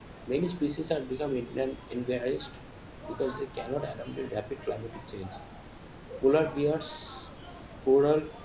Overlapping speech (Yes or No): No